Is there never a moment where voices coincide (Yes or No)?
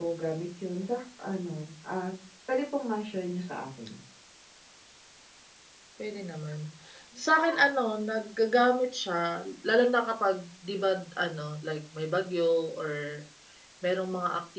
Yes